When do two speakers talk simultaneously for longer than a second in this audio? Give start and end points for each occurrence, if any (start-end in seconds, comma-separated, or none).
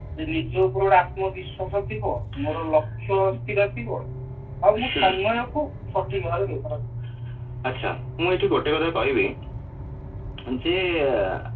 none